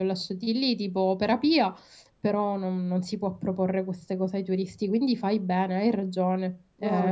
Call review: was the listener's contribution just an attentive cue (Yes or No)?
No